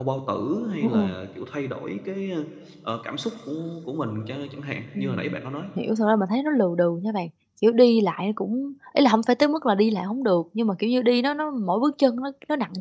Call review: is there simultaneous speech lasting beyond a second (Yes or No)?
No